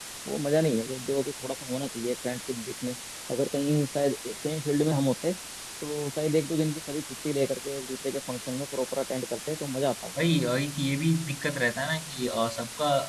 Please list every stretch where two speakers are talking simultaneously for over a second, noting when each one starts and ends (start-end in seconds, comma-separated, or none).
none